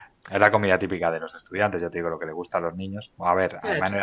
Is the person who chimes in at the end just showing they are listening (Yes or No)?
Yes